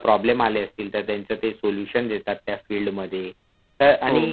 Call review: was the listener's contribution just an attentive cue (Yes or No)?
Yes